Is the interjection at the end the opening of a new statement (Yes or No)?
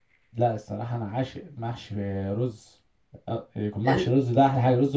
No